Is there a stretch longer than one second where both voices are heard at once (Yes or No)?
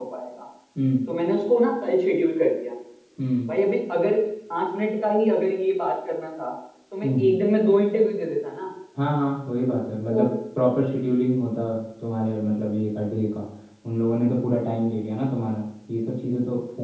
No